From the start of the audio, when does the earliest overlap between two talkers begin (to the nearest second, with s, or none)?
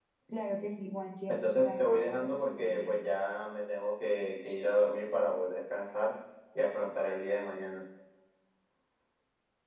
1 s